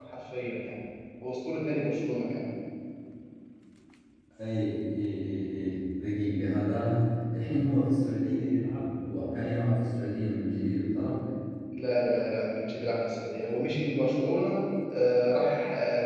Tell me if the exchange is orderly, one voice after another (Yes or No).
Yes